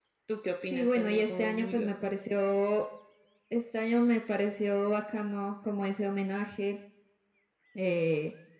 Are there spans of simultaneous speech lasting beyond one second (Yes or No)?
Yes